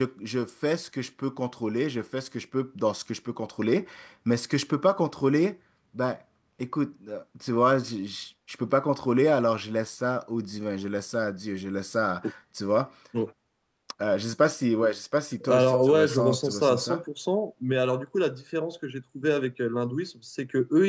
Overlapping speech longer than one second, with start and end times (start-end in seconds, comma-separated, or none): 15.5-17.0